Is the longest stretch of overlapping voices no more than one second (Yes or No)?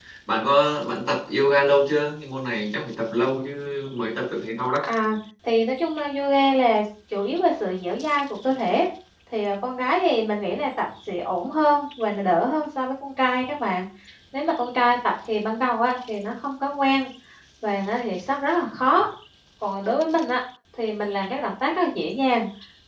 Yes